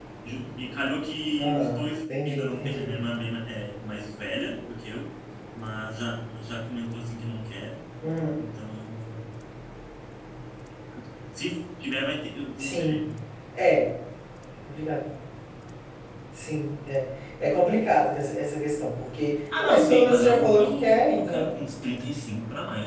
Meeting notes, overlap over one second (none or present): present